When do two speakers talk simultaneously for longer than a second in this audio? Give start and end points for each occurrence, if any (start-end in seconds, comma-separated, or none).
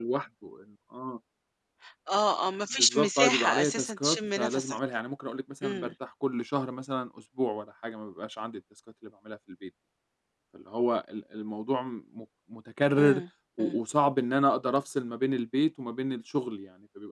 2.7-4.8